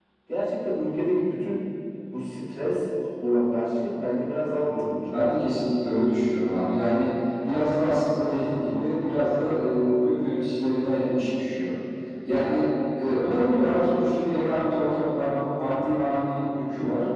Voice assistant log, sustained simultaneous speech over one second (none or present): none